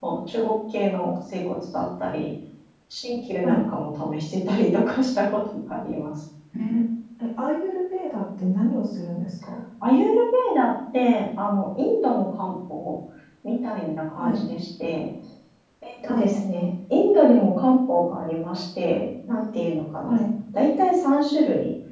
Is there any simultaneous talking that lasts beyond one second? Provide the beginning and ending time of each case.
none

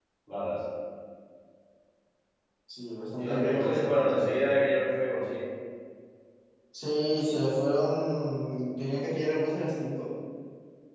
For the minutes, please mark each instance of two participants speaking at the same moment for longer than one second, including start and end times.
3.2-4.6

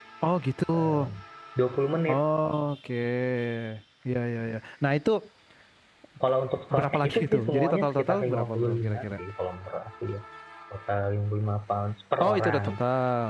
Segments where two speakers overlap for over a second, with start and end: 6.8-9.2

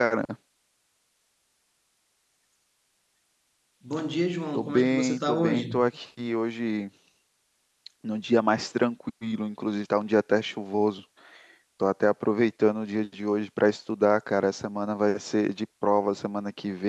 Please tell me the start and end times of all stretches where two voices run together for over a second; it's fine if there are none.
4.5-5.8

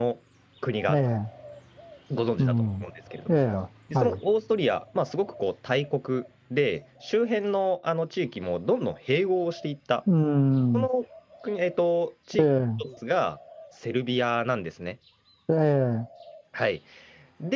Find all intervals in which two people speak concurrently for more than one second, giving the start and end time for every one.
none

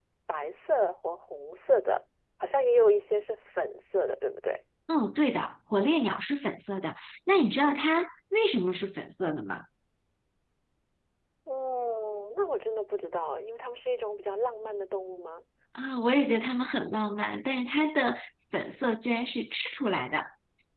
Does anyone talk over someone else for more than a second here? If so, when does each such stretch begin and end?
none

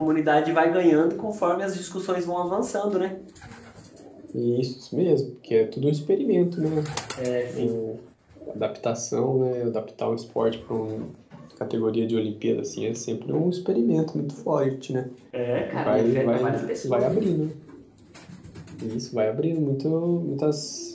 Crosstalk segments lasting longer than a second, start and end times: 15.7-17.2

